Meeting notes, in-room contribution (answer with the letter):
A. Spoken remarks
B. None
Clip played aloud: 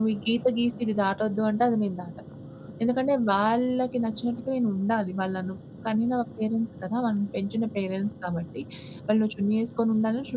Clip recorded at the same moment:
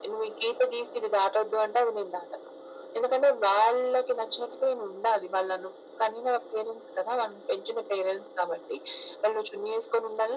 B